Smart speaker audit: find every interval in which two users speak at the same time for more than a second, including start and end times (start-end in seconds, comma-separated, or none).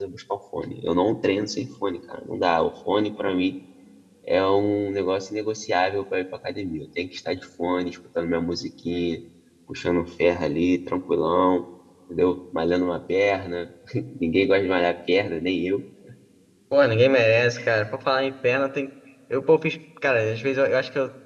none